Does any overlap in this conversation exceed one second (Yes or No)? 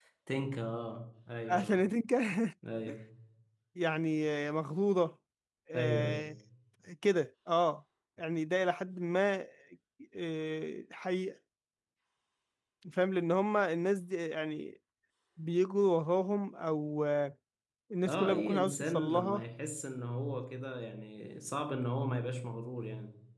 Yes